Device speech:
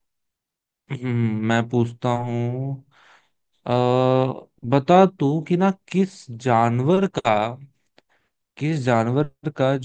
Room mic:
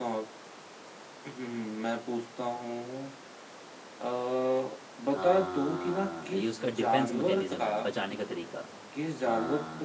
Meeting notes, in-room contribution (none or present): present